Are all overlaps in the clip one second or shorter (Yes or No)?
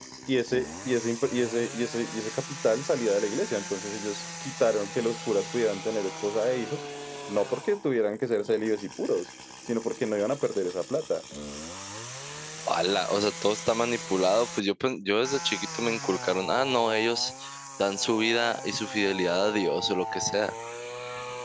Yes